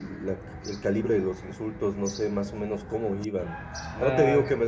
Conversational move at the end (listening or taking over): listening